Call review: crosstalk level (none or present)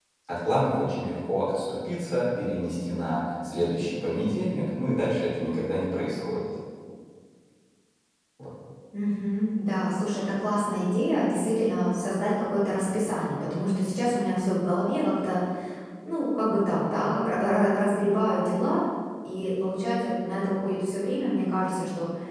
none